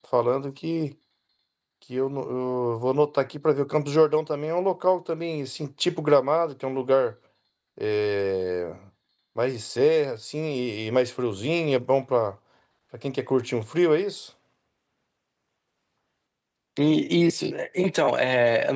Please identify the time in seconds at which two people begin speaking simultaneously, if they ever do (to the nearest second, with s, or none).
none